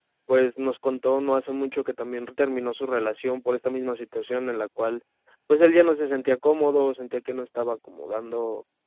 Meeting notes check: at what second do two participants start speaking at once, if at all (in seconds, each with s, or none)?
none